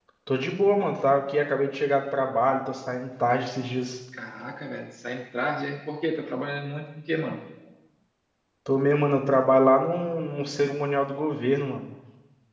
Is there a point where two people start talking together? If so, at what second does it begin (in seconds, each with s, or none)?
none